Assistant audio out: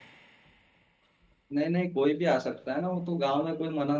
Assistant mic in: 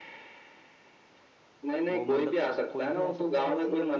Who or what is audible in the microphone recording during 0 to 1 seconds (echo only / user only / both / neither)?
neither